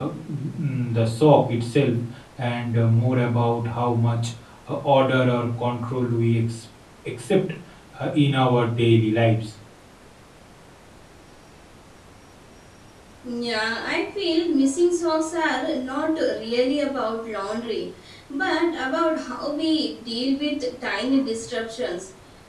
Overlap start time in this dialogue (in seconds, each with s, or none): none